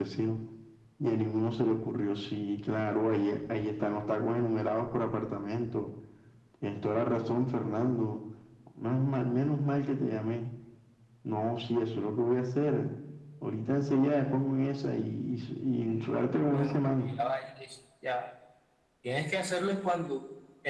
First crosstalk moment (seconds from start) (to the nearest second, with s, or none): 16 s